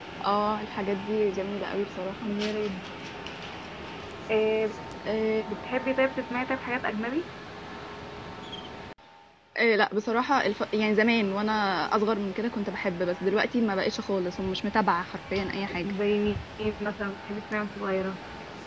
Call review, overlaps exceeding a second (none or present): none